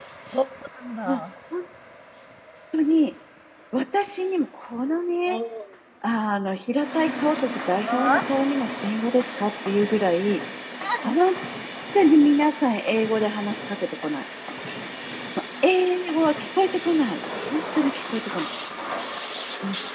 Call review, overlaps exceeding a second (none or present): none